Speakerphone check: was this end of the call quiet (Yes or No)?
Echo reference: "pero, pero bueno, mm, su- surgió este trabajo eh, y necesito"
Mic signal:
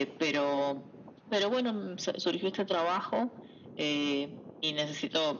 Yes